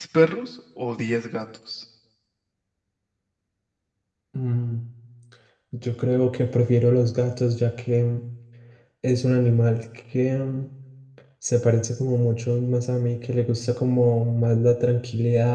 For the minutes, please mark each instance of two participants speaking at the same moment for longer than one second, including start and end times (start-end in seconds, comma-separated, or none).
none